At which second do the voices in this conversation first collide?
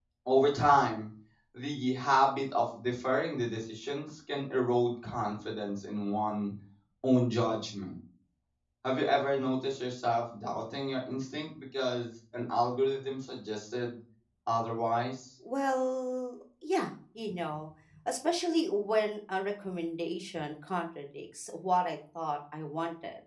none

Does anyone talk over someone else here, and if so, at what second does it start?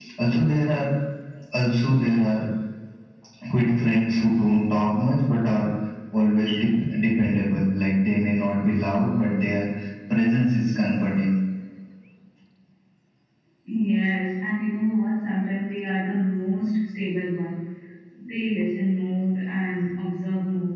none

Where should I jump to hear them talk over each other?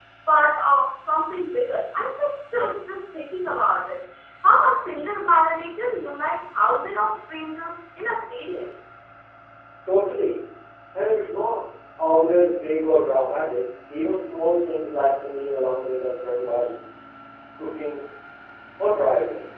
none

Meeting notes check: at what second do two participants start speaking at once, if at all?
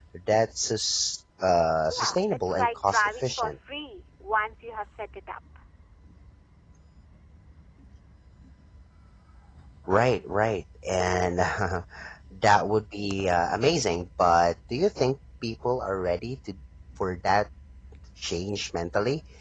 1.9 s

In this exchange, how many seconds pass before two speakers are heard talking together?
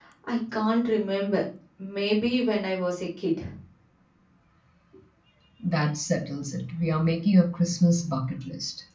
none

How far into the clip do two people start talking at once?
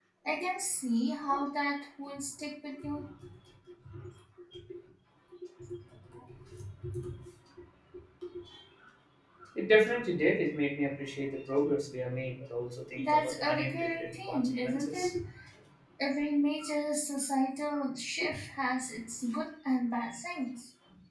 13.0 s

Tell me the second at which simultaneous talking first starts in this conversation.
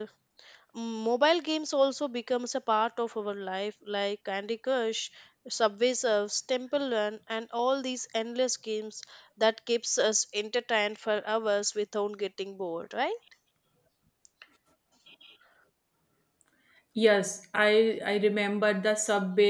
none

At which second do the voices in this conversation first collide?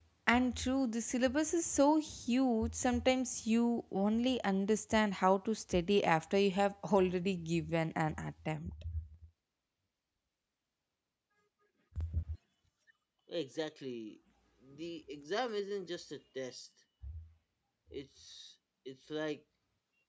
none

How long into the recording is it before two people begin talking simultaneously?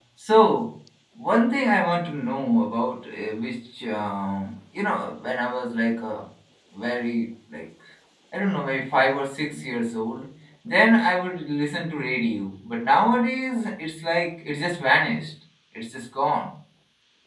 none

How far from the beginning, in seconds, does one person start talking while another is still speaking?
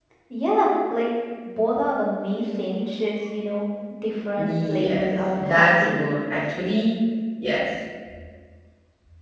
4.4 s

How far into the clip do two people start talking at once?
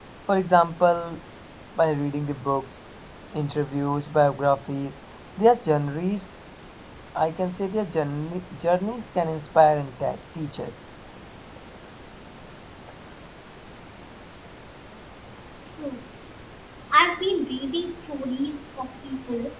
none

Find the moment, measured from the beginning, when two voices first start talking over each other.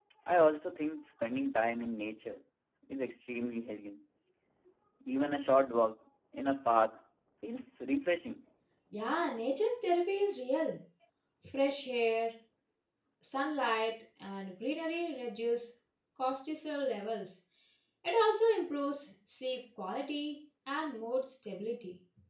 none

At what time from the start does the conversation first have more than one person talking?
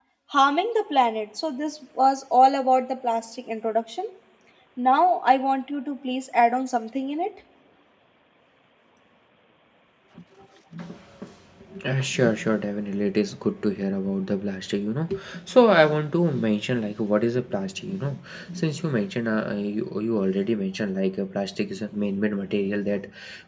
none

